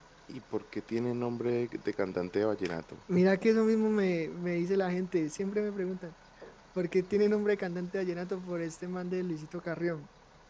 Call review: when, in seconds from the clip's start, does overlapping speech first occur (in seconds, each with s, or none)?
none